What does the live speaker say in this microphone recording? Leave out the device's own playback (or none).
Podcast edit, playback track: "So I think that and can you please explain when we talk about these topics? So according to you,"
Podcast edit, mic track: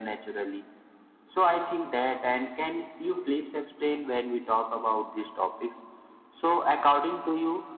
none